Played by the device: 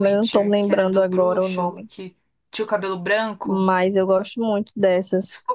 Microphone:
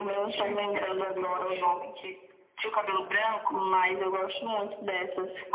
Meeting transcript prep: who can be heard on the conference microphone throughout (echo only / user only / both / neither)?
both